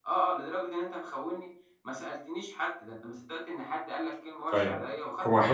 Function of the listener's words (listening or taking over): taking over